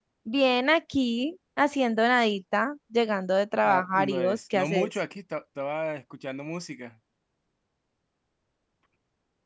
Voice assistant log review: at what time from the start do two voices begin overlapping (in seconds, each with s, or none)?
3.6 s